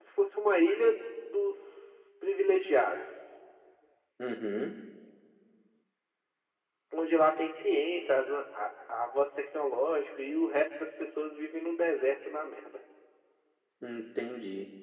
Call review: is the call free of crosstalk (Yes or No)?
Yes